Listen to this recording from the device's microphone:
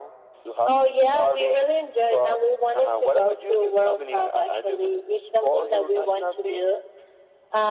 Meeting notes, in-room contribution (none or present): none